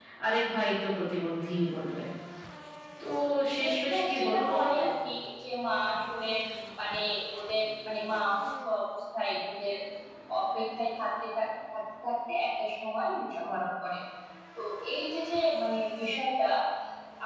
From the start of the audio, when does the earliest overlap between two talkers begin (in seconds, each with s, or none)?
3.5 s